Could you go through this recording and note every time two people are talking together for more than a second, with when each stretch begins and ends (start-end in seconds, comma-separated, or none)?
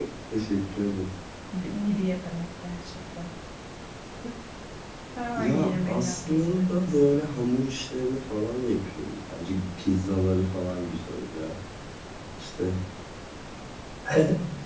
5.4-7.1